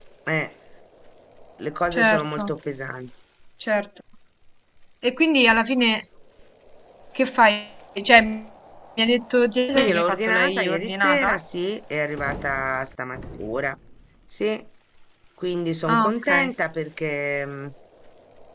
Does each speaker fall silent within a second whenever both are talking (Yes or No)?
No